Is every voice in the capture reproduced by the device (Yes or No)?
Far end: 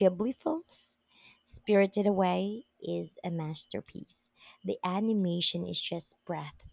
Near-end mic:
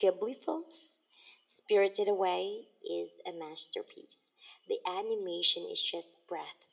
Yes